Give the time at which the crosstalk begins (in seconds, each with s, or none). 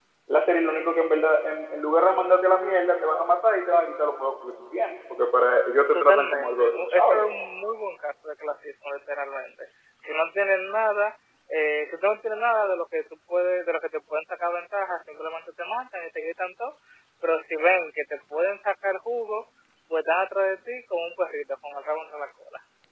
5.9 s